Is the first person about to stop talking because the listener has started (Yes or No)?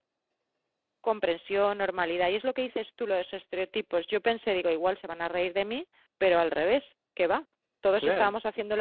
No